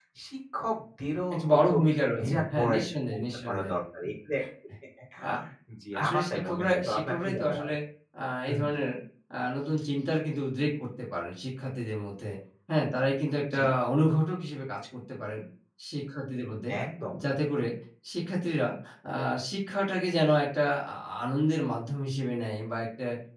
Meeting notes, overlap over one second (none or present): present